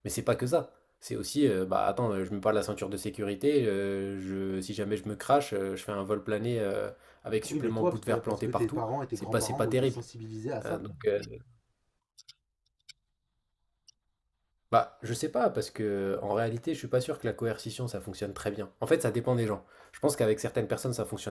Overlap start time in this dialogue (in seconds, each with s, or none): 7.5 s